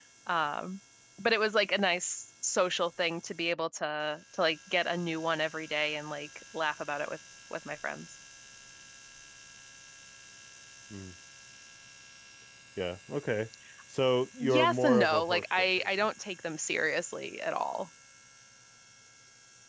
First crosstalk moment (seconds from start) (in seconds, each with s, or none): 14.4 s